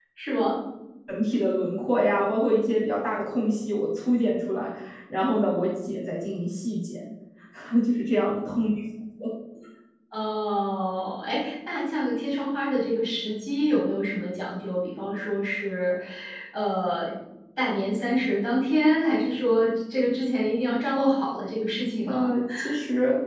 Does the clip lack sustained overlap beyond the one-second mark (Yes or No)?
Yes